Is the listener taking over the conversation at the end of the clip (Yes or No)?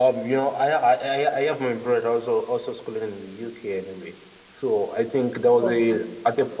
No